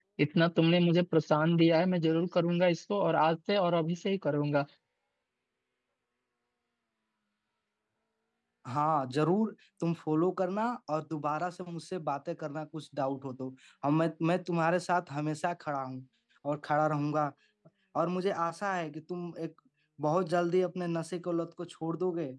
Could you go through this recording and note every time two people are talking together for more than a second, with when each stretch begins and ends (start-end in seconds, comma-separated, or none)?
none